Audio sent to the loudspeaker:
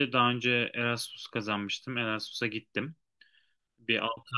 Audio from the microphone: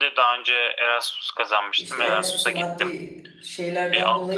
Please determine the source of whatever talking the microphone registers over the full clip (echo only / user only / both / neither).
both